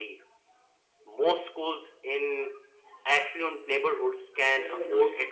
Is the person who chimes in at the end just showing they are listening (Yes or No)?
Yes